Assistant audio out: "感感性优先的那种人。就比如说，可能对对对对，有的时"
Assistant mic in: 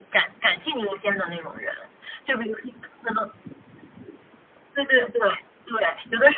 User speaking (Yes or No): No